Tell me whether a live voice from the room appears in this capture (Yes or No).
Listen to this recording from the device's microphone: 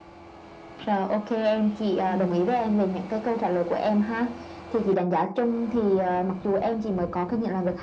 Yes